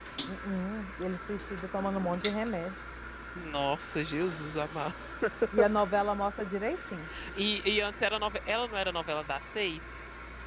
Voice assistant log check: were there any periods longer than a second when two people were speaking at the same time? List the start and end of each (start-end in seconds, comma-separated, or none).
none